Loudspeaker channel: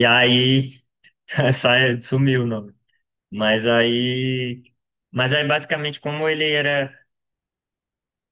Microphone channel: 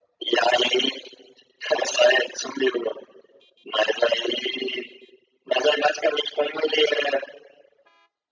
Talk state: echo only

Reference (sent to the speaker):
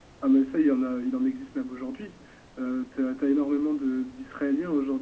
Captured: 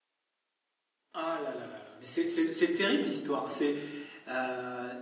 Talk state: user only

